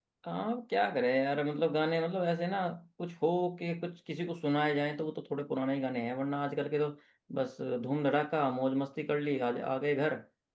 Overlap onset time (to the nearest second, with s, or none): none